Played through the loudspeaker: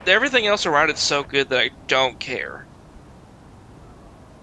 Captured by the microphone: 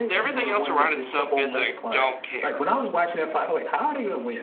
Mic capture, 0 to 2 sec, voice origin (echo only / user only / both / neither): both